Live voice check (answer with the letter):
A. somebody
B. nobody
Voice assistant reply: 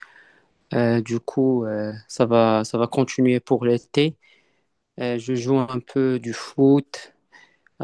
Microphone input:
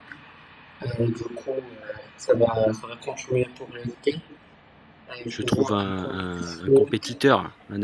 A